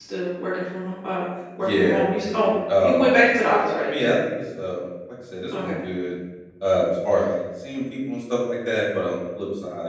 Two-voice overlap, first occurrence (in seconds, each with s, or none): 1.6 s